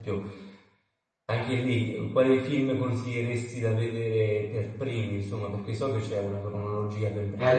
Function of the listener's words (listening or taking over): taking over